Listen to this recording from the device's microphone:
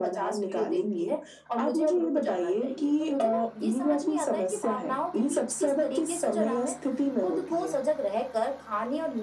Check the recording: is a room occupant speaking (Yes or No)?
No